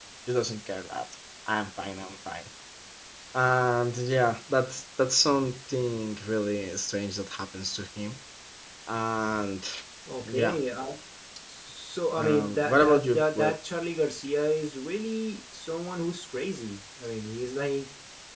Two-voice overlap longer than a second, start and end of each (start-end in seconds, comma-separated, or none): 12.2-13.5